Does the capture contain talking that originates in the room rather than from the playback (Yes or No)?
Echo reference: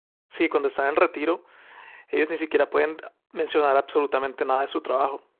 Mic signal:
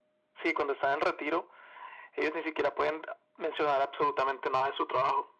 No